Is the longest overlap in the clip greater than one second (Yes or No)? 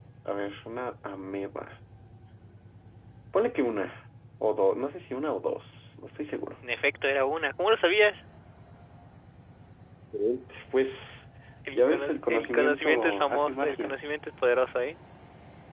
Yes